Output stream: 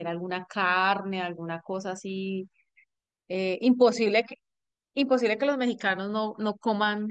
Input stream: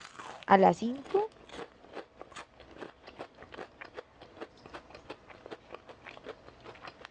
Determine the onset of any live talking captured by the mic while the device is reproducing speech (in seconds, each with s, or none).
0.5 s